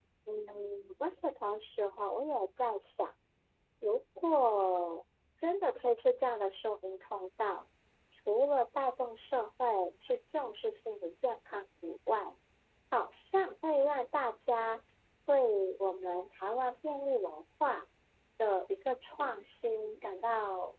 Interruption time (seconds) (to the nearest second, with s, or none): none